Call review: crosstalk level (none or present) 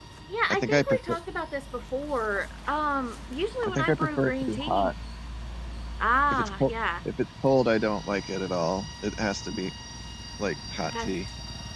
present